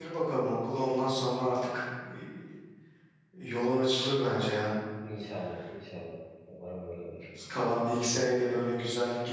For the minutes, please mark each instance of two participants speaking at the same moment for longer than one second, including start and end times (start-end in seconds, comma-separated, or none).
none